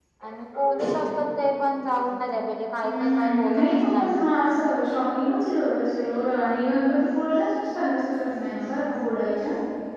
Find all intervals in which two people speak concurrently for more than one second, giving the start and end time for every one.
2.8-4.2

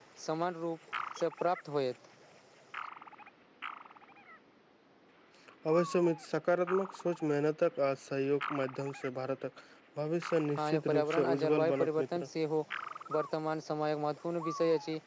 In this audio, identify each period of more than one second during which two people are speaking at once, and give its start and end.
10.6-12.3

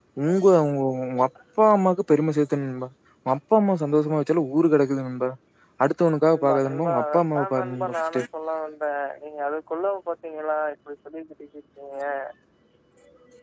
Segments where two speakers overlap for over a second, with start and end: 6.3-8.2

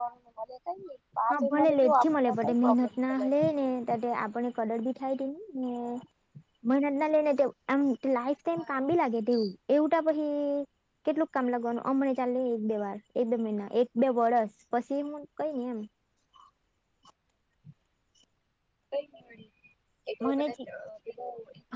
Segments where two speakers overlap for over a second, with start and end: 1.3-3.3

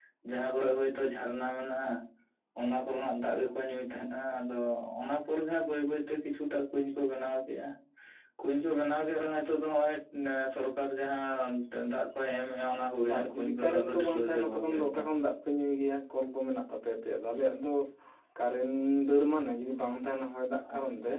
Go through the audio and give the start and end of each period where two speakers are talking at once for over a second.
13.2-15.1

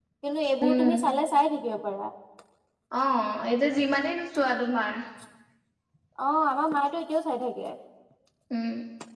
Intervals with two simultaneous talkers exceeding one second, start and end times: none

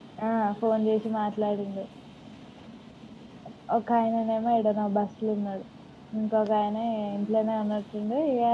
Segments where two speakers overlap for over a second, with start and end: none

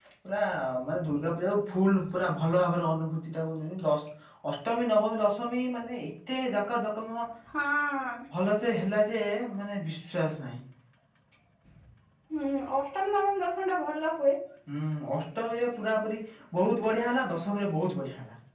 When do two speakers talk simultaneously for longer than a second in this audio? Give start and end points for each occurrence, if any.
none

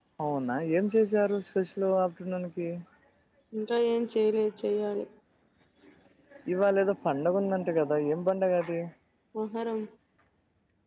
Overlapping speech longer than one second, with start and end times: none

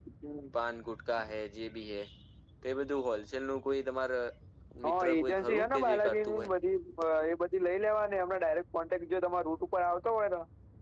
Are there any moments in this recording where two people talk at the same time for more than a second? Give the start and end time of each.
4.8-6.5

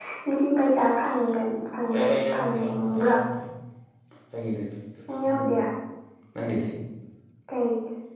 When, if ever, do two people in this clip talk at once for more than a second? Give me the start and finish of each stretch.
1.9-3.2

